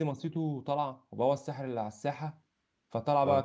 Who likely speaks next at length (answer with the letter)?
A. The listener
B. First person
B